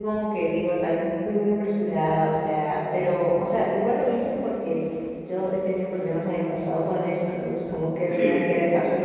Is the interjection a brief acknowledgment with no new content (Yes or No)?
Yes